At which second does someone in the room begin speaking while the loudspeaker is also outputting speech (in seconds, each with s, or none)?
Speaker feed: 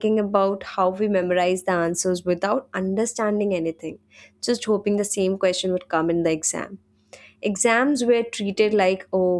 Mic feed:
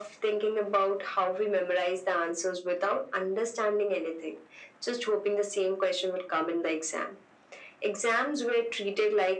none